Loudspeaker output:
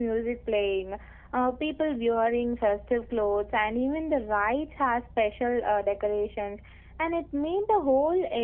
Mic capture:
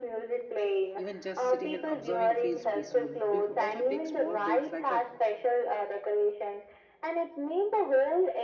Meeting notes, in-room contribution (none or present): present